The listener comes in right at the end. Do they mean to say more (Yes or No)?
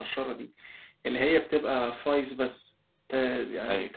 Yes